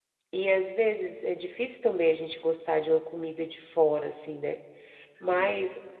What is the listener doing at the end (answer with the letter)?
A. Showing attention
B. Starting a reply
A